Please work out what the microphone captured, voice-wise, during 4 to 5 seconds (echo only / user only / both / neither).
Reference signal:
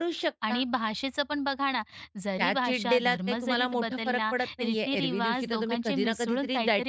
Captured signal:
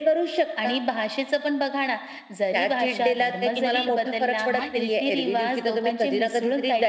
both